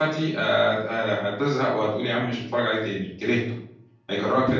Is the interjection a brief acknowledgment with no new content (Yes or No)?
No